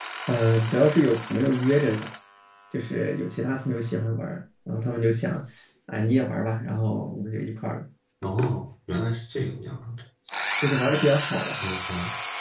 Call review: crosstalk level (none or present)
none